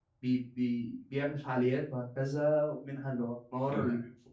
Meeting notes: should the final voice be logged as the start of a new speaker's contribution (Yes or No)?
No